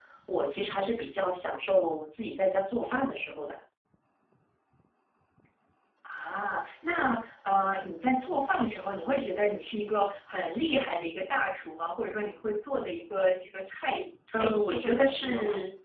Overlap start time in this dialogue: 14.3 s

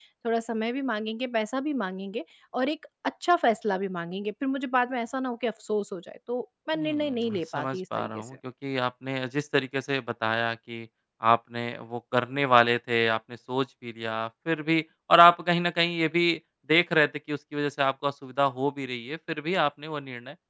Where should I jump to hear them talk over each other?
6.8 s

